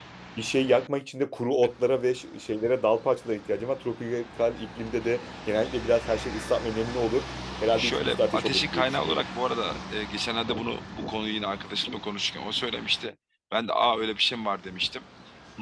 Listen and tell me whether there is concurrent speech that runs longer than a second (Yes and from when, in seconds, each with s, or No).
Yes, from 7.8 s